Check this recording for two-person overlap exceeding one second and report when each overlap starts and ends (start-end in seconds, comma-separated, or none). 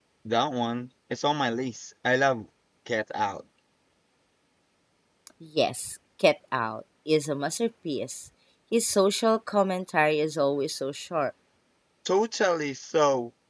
none